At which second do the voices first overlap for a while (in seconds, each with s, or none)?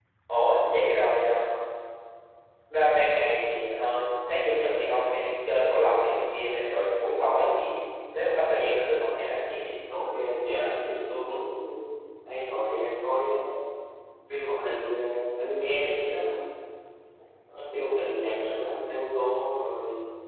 none